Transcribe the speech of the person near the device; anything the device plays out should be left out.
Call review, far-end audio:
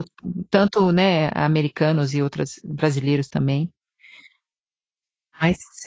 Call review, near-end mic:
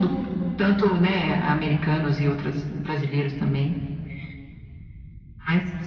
none

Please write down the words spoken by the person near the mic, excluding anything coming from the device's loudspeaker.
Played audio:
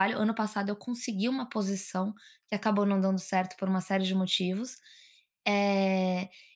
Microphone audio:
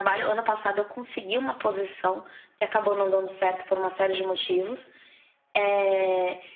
none

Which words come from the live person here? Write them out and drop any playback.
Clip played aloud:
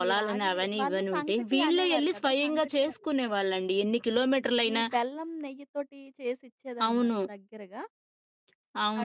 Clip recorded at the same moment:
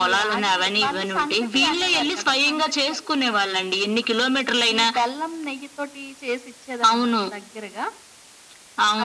none

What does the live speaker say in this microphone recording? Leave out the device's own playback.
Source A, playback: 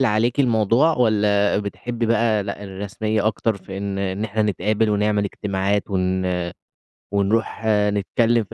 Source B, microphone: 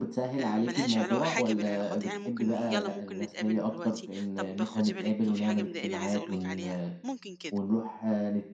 آآ مالهاش علا حاجة بالعلاقات، يعني ممكن يالّا ممكن نتقابل دلوقتي، طب خُدي بالِك في حاجة مضايقاني عايزة أقول لِك عليها، ممكن كده.

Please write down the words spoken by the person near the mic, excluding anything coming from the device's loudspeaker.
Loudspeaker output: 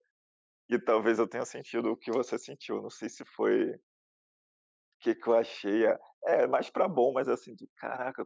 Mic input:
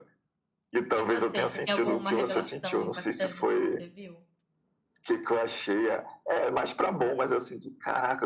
E você, você tem alguma revelação impactante, assim, que você viu?

